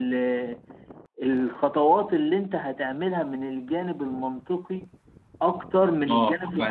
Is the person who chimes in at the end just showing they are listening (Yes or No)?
Yes